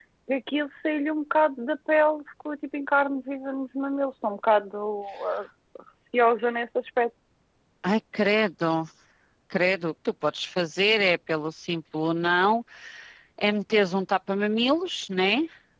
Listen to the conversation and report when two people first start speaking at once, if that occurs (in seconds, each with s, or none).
none